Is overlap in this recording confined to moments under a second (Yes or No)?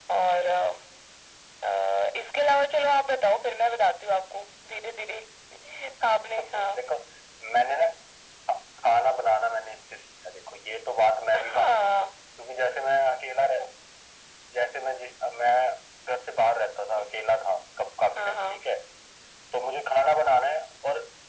Yes